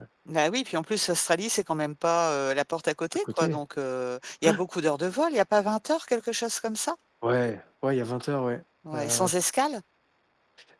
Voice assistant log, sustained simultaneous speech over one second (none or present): none